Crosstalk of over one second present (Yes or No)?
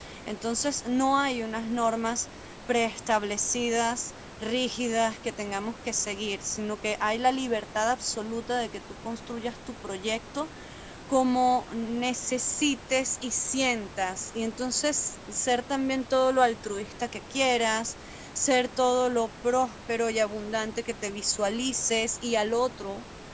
No